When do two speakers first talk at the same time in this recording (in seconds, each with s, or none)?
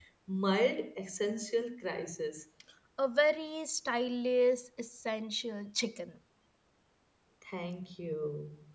none